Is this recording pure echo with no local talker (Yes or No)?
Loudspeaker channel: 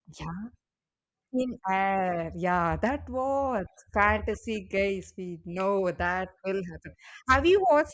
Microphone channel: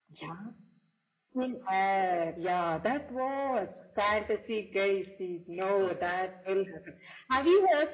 No